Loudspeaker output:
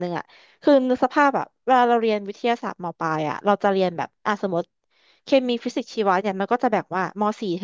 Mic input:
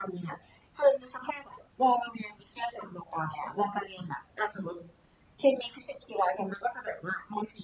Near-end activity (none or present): none